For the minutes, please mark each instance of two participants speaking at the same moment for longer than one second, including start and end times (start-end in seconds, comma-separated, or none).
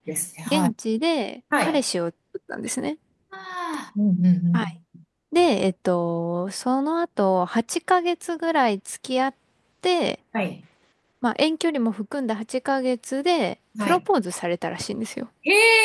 none